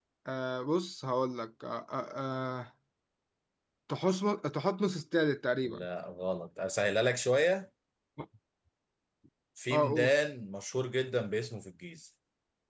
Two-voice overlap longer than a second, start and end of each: none

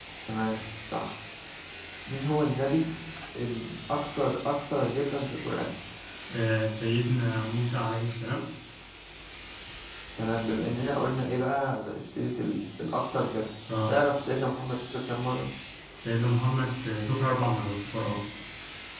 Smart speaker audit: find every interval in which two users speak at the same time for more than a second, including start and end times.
none

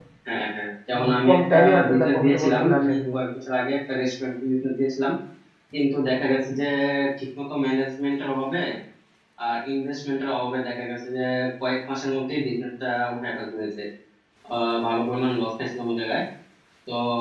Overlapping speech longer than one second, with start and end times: 1.0-3.0

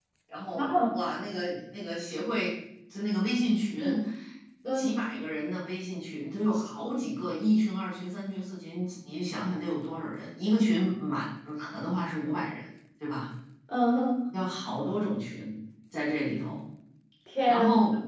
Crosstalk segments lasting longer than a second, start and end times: none

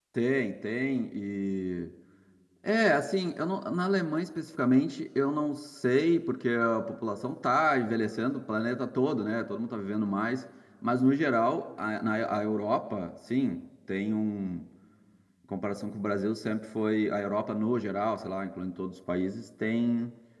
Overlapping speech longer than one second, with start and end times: none

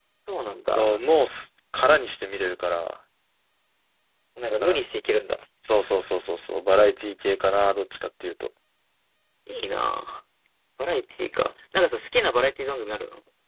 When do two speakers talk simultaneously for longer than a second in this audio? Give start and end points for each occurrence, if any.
none

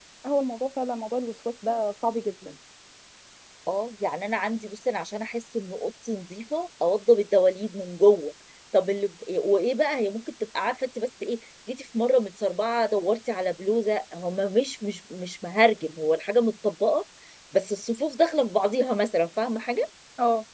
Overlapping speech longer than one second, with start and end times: none

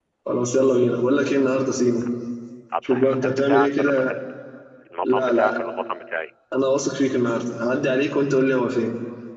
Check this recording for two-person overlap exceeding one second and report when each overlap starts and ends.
2.8-4.1

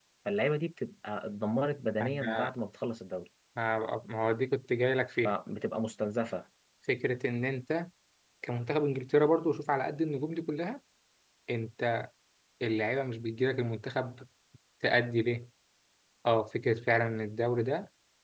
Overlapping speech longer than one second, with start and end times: none

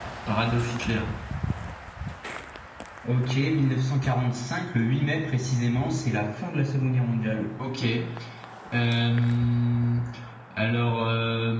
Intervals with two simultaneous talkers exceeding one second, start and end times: none

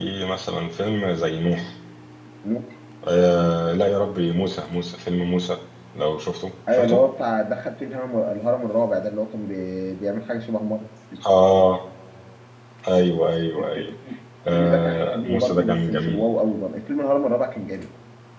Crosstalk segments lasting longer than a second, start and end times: 14.5-16.3

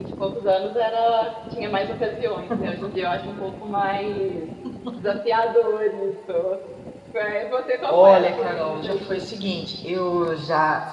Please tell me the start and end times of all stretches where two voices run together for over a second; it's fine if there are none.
7.9-9.3

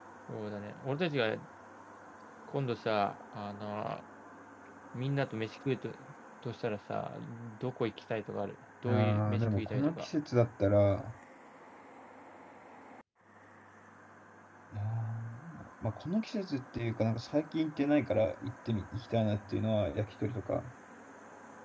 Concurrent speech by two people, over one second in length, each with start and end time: 8.8-10.1

